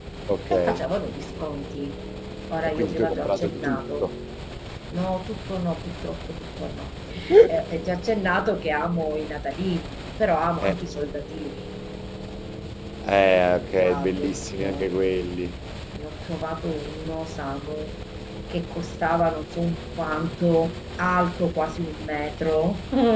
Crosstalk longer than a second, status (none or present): present